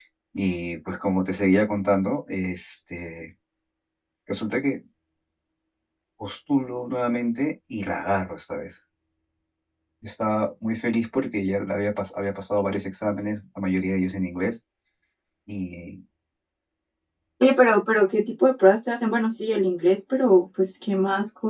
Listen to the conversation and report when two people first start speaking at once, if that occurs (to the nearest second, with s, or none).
none